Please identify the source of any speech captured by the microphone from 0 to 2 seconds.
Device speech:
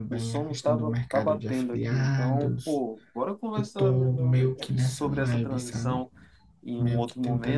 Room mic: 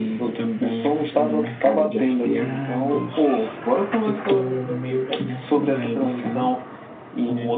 echo only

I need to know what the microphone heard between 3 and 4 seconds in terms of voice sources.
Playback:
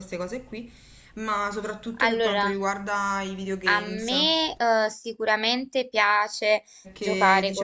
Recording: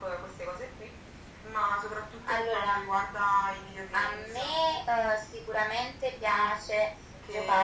echo only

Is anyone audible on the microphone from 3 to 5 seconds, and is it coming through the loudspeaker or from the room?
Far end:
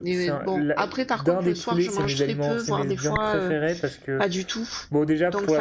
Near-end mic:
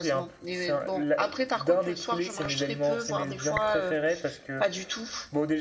echo only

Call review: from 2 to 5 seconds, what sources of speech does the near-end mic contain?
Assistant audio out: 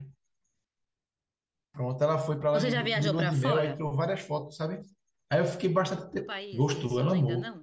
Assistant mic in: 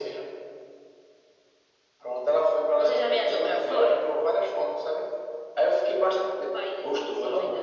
echo only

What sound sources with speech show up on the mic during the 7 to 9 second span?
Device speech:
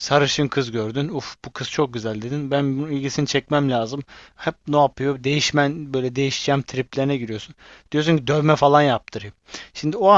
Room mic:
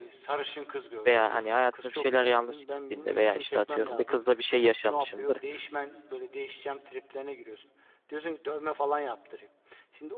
echo only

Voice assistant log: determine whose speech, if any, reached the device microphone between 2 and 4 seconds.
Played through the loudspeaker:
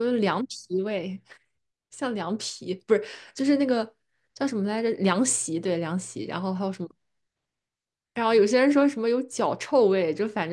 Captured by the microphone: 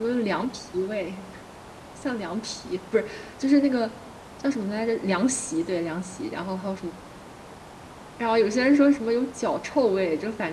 echo only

